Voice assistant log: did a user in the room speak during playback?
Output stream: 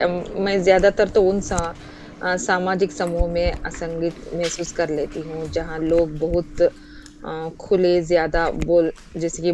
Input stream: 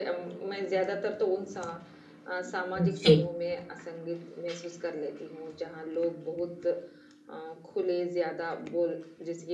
Yes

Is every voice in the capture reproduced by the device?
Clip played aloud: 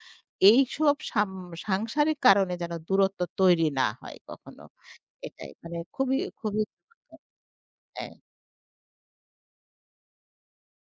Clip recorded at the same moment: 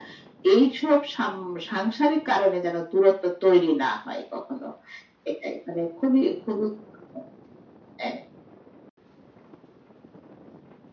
Yes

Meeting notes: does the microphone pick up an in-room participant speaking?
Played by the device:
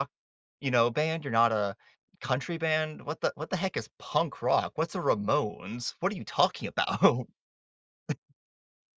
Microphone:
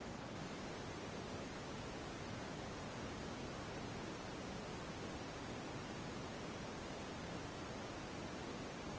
No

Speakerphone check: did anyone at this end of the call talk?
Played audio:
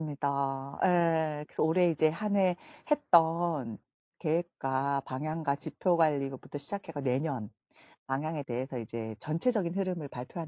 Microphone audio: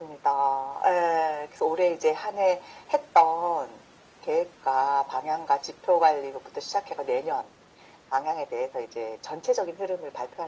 No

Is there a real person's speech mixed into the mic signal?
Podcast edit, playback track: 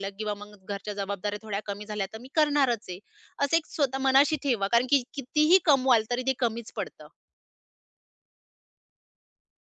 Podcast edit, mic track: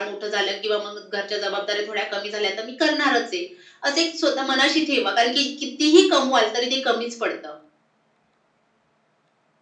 No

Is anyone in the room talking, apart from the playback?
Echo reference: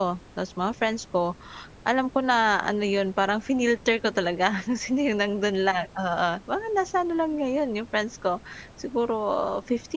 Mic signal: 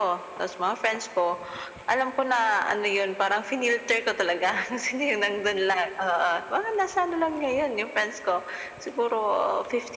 No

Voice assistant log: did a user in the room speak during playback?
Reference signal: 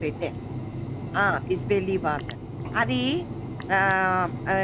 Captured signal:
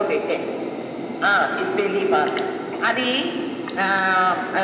No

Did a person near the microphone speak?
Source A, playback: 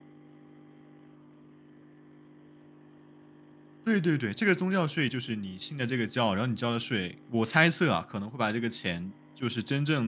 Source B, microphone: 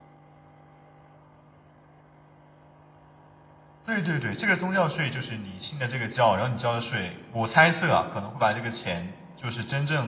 No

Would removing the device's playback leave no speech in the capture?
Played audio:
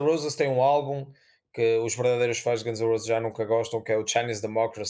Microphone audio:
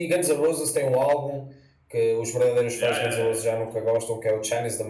No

